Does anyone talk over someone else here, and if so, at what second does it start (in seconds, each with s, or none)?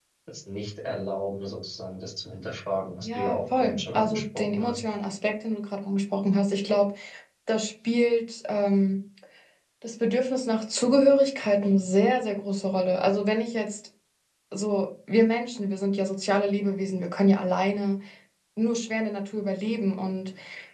3.0 s